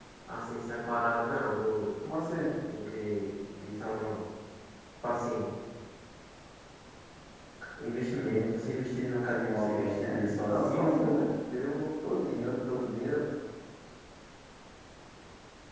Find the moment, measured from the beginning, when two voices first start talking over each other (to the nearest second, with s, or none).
9 s